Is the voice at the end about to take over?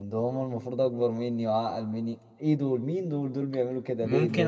Yes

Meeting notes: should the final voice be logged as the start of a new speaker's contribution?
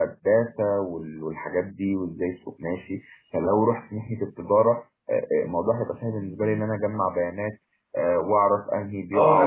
Yes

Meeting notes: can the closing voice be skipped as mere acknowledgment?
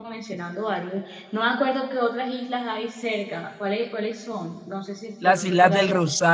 No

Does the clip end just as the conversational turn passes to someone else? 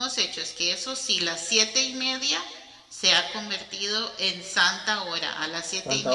No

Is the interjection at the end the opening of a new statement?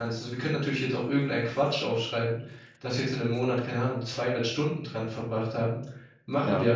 No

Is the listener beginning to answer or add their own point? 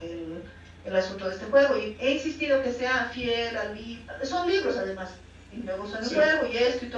No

